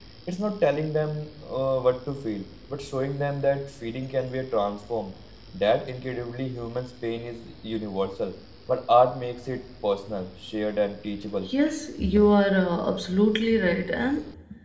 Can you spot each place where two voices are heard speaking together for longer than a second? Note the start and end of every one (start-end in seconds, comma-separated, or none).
none